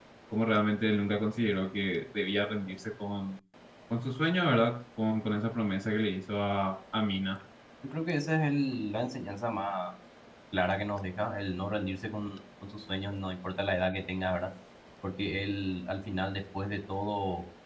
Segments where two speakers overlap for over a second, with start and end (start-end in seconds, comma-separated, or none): none